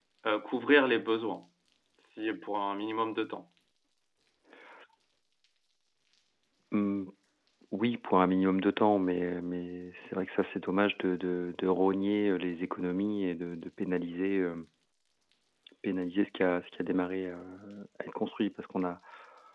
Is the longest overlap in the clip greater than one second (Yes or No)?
No